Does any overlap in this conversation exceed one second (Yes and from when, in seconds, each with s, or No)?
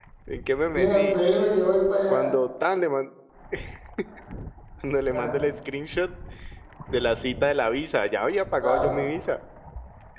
No